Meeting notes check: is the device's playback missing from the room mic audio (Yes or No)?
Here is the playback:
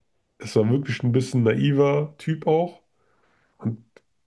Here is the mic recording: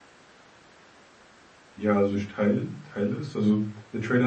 Yes